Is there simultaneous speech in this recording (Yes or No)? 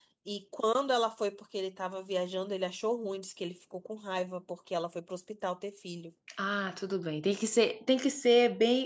No